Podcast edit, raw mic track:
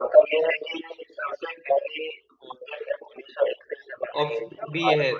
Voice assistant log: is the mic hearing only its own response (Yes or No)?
No